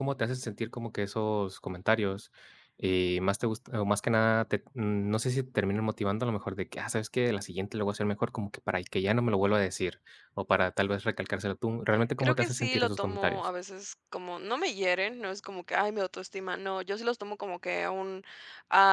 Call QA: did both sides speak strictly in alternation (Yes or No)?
No